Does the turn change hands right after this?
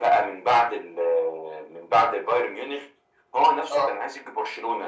No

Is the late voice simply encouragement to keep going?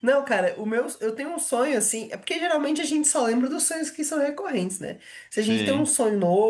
Yes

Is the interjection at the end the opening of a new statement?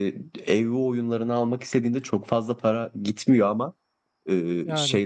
No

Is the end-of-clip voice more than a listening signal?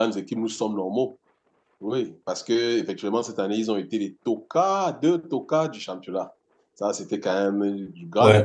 Yes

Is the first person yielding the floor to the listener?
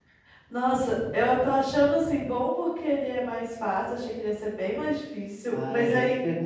Yes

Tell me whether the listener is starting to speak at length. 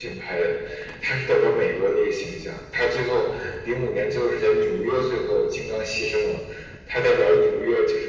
No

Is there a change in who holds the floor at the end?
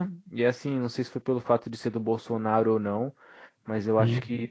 No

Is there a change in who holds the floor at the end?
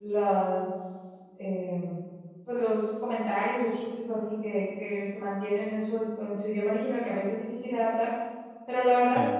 No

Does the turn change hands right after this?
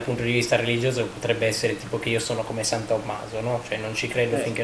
No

